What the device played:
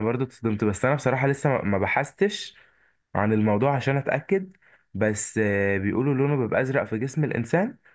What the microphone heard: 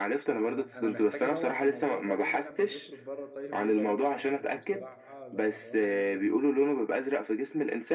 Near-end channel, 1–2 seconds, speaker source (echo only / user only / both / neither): both